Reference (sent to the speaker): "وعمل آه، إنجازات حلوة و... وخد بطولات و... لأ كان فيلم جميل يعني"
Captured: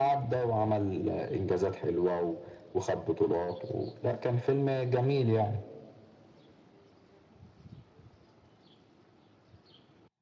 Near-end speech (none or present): none